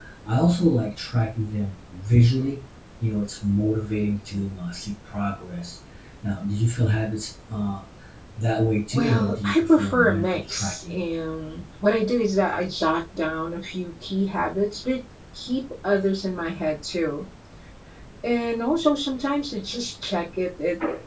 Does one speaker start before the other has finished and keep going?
Yes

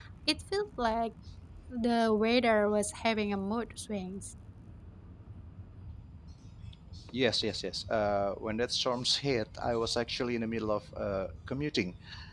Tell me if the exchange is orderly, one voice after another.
Yes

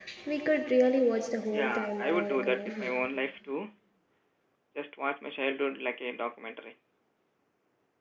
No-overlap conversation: No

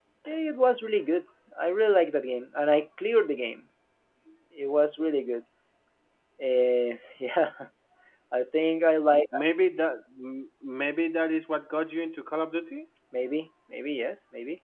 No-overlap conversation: Yes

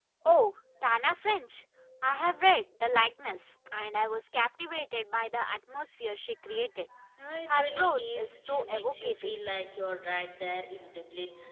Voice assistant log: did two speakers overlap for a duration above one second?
Yes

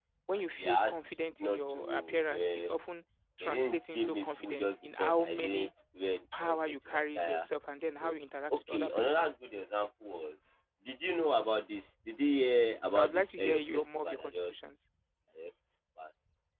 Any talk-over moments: Yes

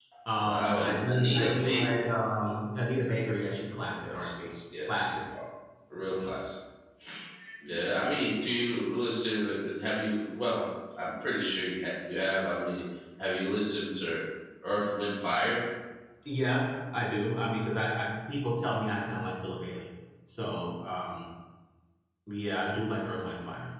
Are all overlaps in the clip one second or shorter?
No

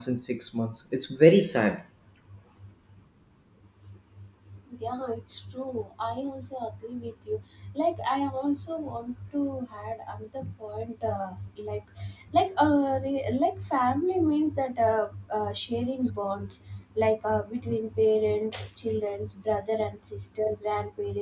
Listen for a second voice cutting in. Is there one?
No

